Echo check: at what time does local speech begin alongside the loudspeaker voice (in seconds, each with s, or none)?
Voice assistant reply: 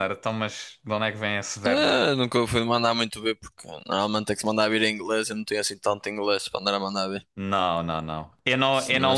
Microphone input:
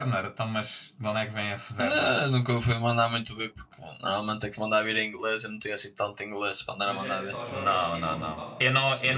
6.8 s